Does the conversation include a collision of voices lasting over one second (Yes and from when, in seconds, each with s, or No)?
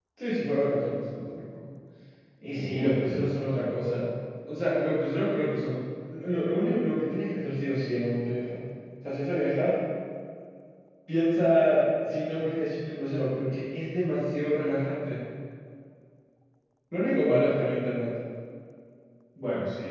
Yes, from 2.5 s